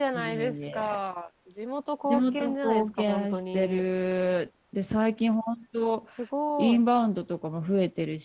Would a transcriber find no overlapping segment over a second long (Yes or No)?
No